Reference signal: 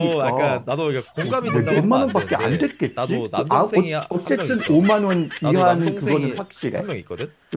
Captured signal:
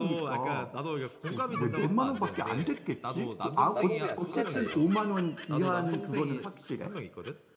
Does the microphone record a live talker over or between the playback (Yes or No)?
Yes